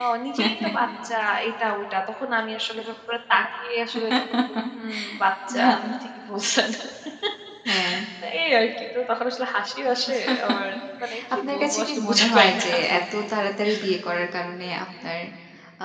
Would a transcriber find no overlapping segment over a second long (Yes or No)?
No